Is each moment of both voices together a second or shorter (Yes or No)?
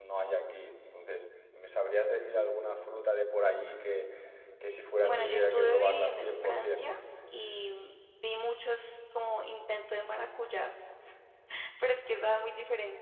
No